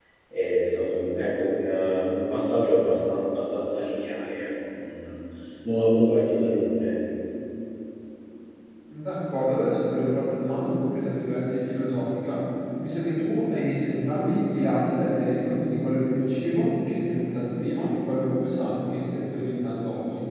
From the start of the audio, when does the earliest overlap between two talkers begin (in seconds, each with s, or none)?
none